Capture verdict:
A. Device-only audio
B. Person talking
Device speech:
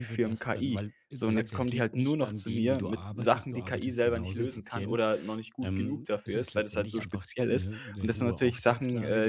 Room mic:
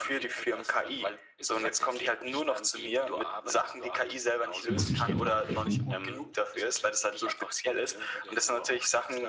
B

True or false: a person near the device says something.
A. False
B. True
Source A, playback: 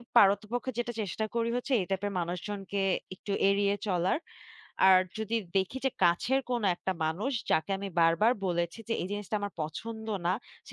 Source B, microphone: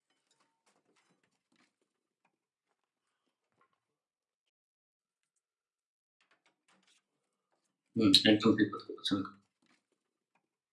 B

